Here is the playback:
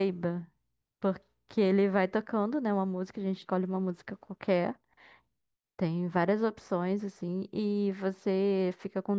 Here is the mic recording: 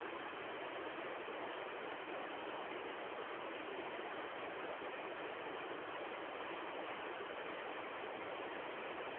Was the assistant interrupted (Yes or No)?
No